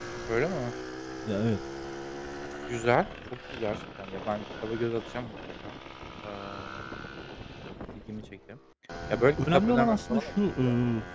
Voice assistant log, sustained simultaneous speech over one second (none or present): present